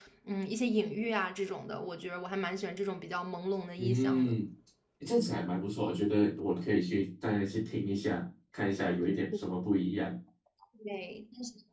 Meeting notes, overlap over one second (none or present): none